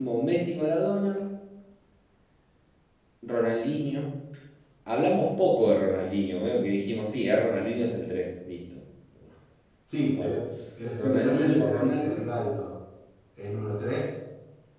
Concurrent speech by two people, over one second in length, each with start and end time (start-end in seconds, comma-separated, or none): 11.0-12.2